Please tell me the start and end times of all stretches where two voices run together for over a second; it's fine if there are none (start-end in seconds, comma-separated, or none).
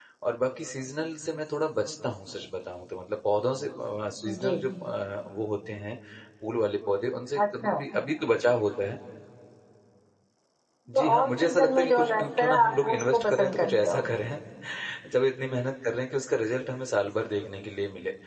11.0-14.0